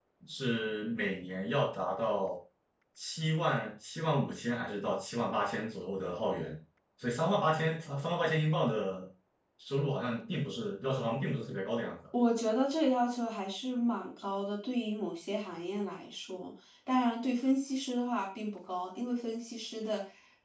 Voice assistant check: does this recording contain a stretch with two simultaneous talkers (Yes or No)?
No